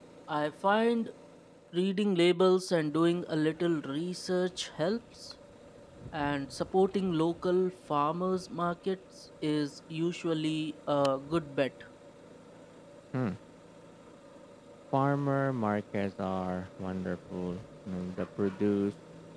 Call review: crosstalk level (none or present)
none